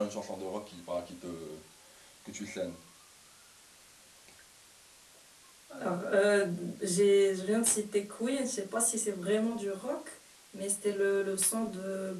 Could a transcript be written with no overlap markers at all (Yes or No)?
Yes